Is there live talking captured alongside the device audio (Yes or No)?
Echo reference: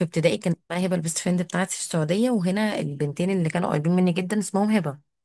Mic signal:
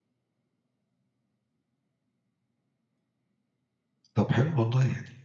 Yes